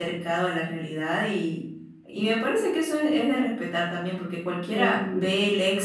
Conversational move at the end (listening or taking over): listening